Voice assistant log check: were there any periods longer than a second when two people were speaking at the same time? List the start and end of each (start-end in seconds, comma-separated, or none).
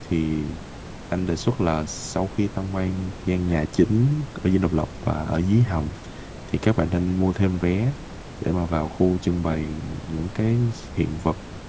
none